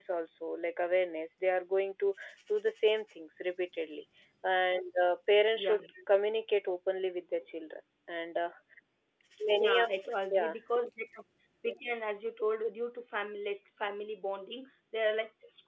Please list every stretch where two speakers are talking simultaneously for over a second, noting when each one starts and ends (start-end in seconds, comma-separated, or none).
none